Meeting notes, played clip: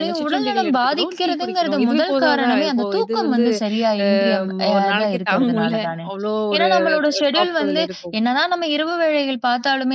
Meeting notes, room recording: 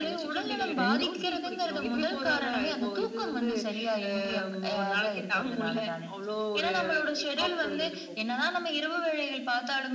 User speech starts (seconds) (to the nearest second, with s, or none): 1 s